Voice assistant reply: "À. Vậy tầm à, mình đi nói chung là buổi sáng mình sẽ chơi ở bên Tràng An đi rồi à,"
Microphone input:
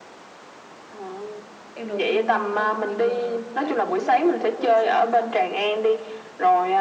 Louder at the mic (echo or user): echo